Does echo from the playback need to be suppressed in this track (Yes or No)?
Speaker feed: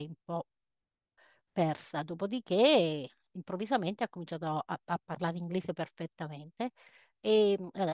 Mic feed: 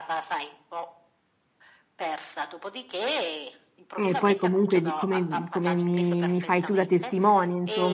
Yes